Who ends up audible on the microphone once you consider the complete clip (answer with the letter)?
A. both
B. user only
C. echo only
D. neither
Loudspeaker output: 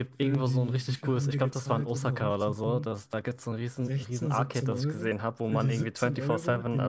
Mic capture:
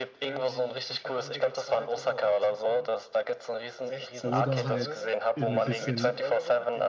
A